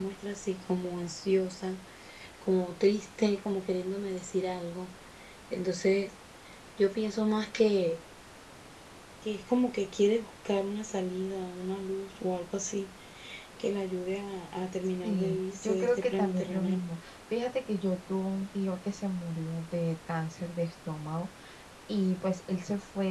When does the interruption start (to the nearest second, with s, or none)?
15 s